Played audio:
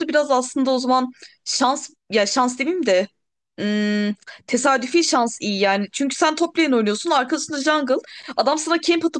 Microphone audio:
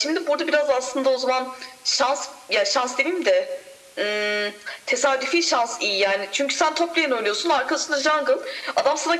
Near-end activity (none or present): none